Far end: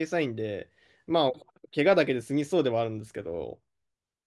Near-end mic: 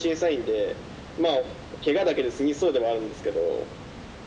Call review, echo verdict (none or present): present